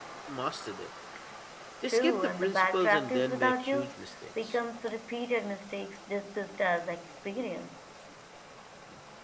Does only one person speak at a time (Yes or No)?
No